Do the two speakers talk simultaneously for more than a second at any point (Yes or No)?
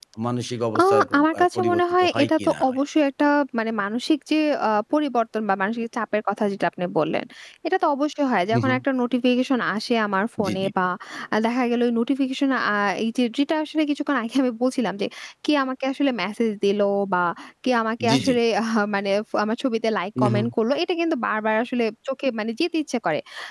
Yes